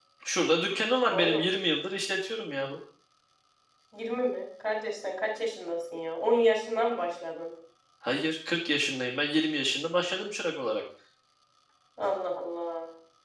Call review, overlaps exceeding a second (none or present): none